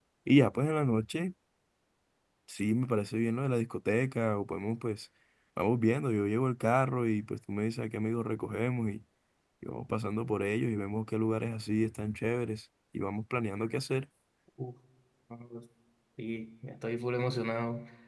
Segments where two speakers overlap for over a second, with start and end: none

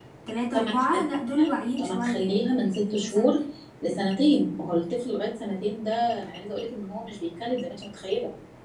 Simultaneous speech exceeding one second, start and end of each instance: 1.8-3.3

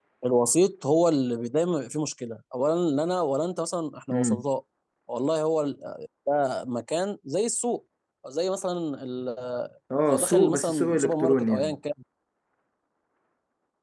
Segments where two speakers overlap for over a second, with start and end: 10.1-11.8

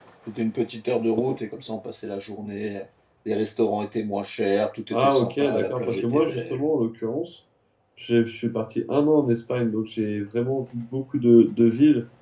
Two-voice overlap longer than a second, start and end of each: 4.9-6.7

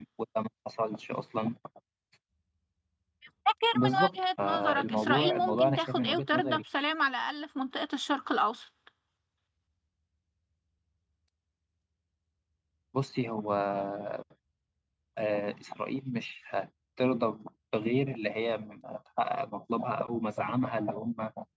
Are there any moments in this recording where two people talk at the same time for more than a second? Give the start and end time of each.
3.7-6.6

